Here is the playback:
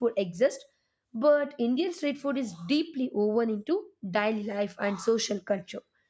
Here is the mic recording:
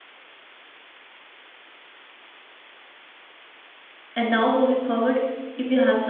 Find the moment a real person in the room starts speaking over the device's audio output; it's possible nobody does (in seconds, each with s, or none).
4.2 s